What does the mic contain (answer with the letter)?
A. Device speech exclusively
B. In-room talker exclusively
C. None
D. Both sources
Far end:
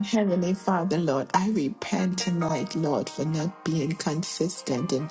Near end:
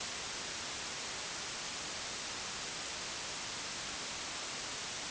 C